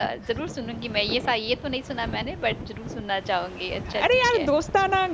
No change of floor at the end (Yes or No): No